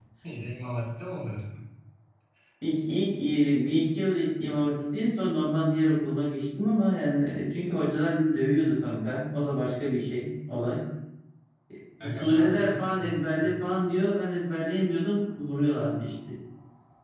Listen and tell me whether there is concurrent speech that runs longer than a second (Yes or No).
Yes